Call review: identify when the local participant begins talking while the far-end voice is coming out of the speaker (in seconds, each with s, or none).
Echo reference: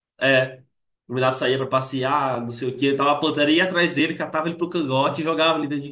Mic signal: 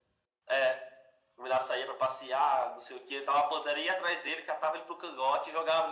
none